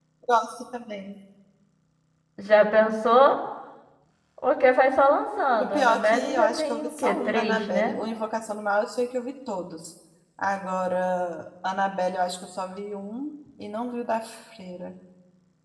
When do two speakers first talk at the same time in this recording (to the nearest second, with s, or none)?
6 s